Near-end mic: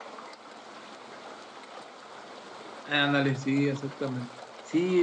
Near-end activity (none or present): present